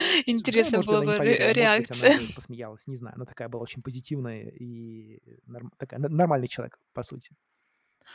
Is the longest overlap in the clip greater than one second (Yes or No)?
Yes